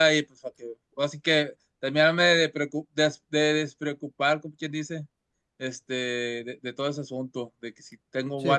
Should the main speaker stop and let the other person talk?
No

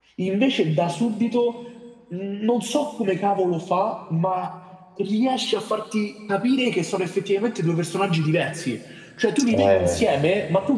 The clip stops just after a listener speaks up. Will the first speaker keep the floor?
Yes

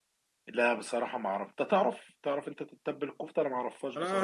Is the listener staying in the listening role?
No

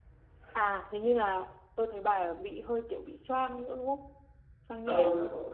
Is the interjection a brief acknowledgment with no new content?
No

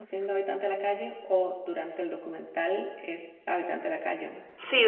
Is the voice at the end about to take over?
Yes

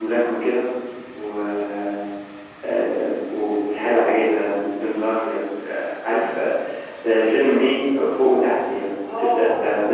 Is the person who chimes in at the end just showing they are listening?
No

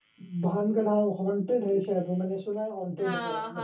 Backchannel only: Yes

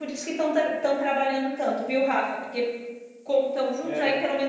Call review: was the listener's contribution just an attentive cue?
Yes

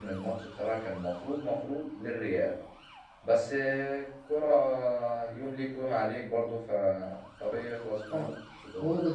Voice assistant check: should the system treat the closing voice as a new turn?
Yes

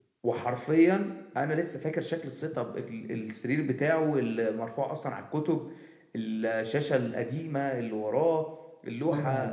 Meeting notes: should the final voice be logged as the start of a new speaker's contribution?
Yes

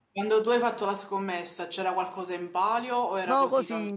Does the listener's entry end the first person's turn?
Yes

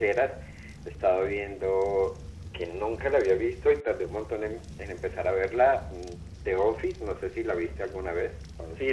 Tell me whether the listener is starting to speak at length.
Yes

